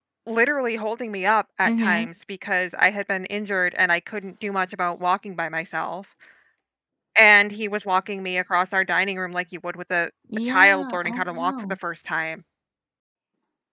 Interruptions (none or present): present